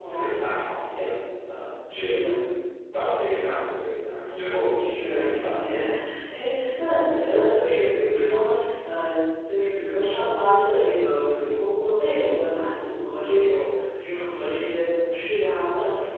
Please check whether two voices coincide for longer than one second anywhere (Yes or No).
Yes